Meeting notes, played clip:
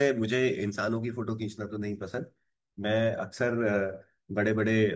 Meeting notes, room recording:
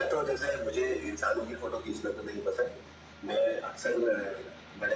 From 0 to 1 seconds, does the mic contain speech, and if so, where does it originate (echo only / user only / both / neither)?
echo only